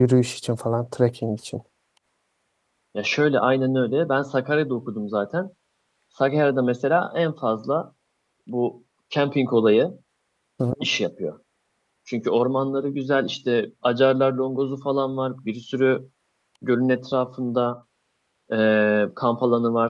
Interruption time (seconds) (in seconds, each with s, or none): none